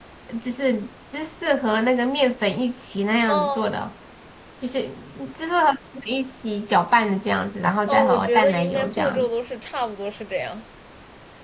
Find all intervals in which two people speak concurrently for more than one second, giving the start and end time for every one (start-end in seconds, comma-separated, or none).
7.9-9.3